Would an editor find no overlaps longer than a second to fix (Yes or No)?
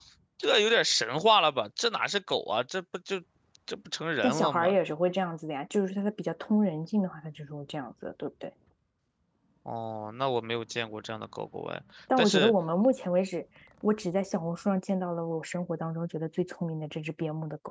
Yes